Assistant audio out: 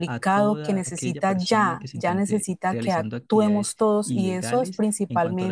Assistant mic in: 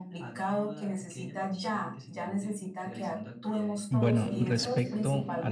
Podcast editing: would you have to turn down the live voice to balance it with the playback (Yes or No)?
Yes